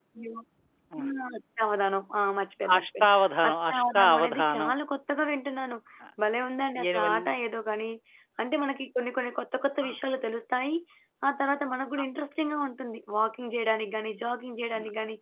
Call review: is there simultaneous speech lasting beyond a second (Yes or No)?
Yes